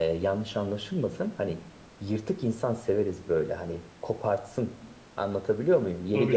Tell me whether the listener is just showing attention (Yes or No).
Yes